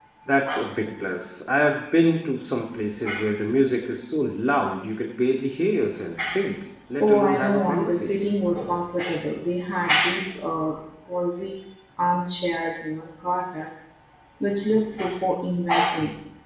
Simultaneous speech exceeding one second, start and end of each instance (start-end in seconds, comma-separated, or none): 7.0-8.3